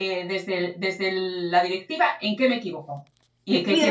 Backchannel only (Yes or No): No